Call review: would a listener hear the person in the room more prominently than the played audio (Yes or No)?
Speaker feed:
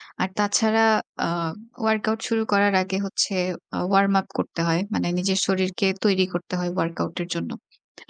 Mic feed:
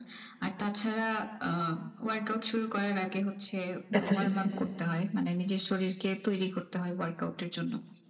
Yes